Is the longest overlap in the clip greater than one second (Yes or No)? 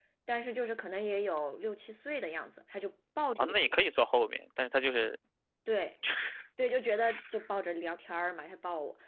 No